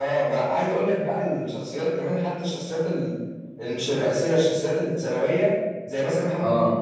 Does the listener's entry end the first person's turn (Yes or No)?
No